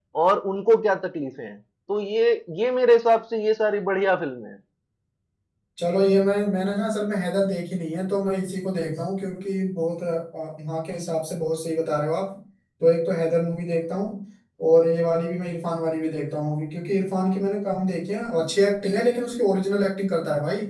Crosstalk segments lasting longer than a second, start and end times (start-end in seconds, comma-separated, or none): none